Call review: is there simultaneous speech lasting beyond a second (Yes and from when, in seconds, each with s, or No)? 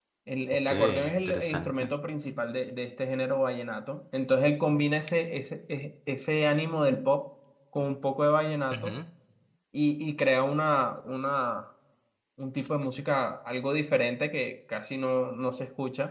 Yes, from 0.7 s